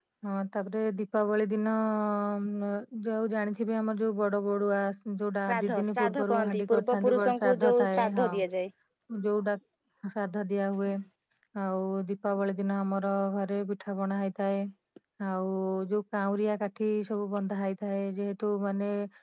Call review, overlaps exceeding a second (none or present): present